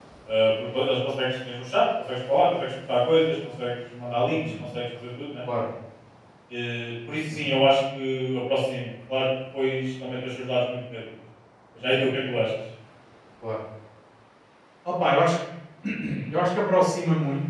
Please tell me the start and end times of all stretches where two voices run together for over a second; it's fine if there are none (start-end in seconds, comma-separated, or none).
none